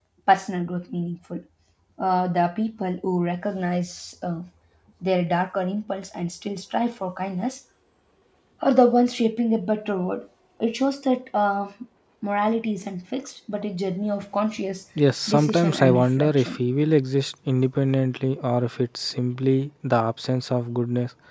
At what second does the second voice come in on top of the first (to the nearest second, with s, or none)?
15 s